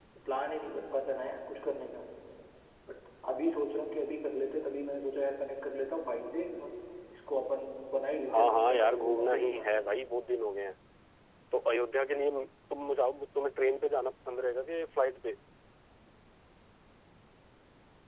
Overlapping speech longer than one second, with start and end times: 8.3-9.7

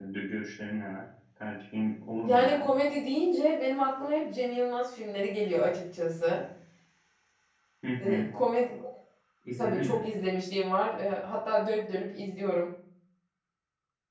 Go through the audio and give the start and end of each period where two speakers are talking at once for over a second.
none

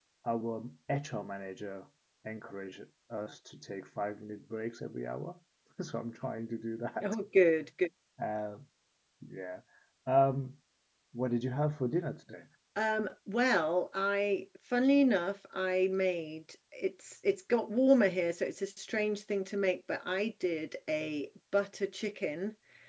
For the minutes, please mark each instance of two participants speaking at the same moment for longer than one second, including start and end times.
none

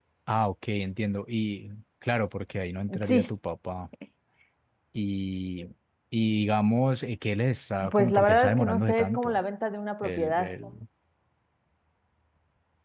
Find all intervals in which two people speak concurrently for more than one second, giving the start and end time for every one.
7.9-9.4

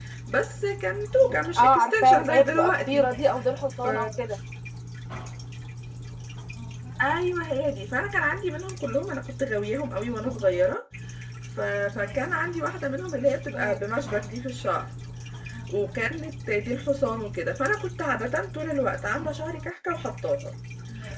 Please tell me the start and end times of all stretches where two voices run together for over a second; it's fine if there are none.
1.6-3.1

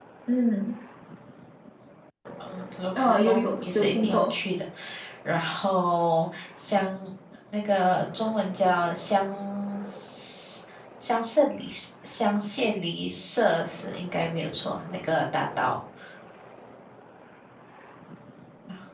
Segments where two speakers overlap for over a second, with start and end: 3.0-4.3

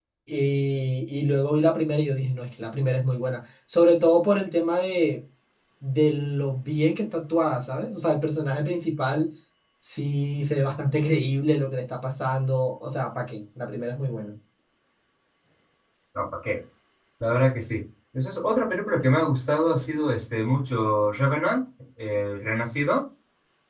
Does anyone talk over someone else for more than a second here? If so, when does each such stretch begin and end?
none

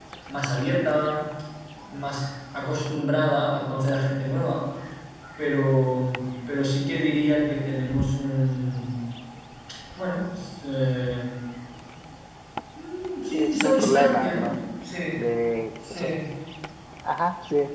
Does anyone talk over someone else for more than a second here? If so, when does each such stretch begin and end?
13.3-14.6

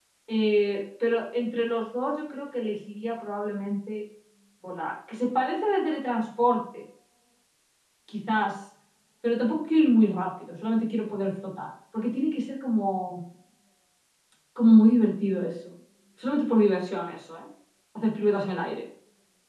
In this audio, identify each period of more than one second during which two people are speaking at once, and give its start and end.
none

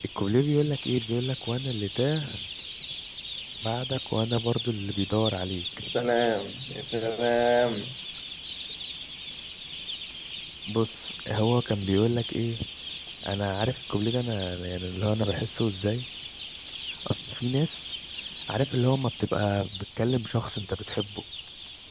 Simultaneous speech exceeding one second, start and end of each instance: none

